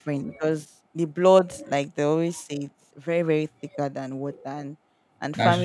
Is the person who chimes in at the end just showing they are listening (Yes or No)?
Yes